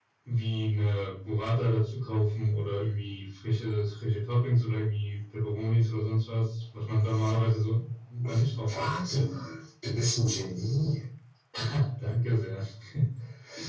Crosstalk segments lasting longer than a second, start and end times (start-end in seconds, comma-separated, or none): none